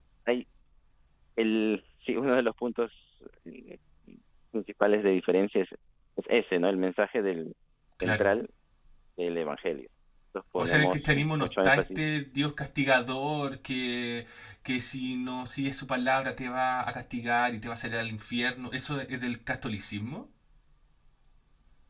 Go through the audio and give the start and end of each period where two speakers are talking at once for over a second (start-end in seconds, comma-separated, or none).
10.6-12.2